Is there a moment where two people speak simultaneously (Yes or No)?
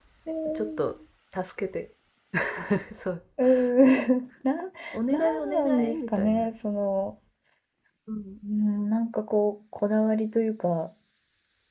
Yes